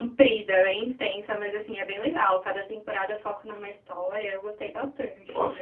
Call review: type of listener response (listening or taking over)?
taking over